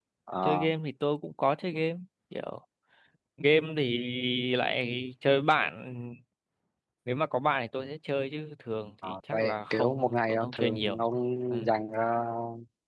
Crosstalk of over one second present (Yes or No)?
Yes